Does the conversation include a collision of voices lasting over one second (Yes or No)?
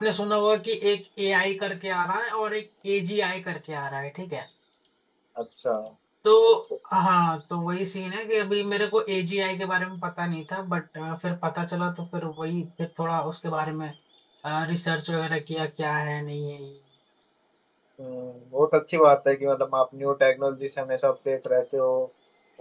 No